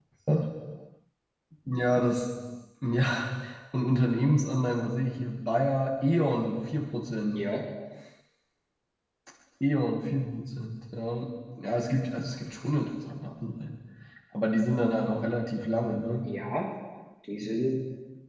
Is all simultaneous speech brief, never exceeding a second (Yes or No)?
Yes